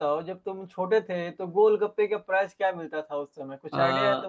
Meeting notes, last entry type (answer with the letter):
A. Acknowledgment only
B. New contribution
B